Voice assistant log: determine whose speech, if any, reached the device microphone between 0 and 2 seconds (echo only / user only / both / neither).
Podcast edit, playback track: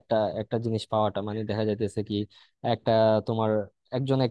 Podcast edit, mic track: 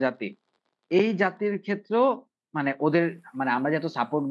user only